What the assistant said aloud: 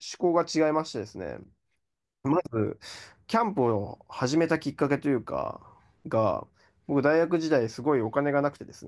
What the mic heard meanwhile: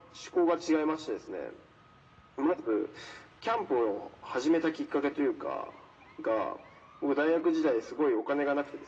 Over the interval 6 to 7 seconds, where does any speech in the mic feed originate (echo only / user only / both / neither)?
echo only